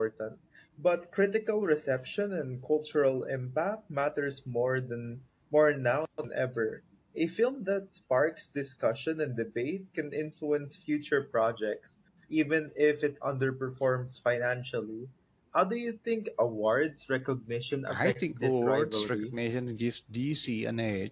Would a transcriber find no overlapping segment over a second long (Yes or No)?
No